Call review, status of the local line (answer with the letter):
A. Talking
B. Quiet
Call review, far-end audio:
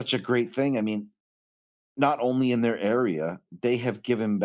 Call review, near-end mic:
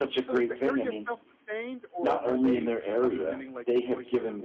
A